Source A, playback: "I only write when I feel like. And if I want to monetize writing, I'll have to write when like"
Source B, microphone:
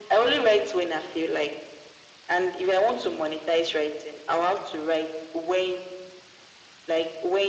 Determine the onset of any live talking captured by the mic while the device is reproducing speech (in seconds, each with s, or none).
none